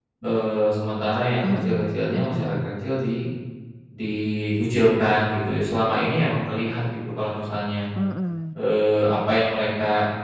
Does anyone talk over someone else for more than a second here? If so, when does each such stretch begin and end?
1.4-2.7

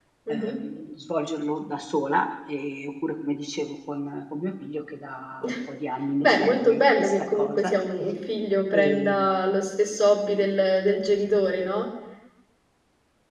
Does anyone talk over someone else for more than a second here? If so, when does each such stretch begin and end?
6.2-7.7

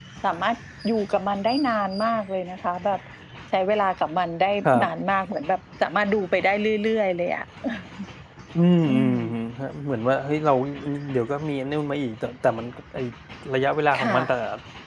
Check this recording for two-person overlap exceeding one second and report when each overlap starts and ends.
none

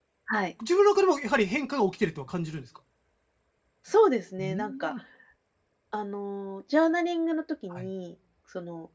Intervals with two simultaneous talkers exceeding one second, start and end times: none

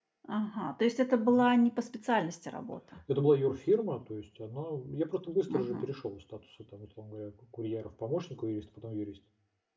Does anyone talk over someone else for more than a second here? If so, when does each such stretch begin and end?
none

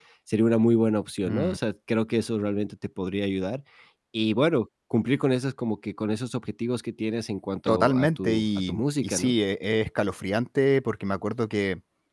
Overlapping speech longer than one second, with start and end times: 7.7-9.3

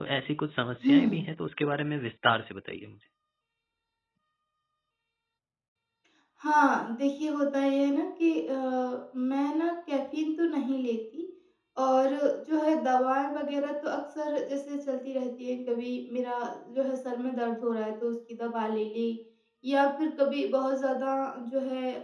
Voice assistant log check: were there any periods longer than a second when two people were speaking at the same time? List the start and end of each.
none

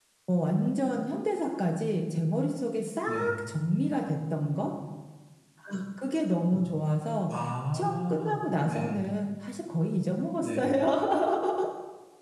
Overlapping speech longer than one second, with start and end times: 7.7-8.9

